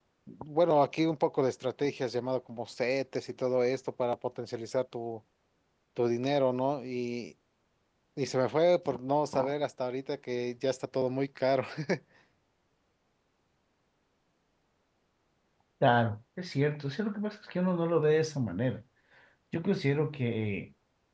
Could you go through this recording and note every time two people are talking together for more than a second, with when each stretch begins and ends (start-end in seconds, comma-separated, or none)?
none